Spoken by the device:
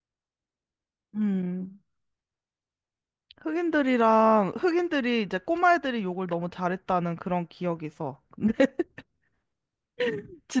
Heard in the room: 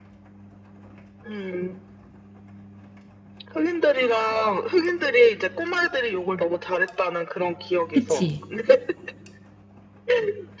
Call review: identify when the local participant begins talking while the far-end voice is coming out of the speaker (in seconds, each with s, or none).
7.9 s